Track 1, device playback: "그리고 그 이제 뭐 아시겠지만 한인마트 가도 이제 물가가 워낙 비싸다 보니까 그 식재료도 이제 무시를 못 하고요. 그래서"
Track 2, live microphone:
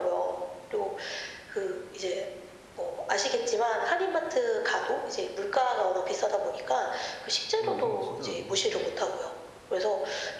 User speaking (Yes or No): Yes